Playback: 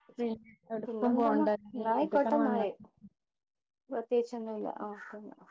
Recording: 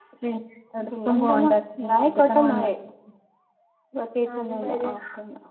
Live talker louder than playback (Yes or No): No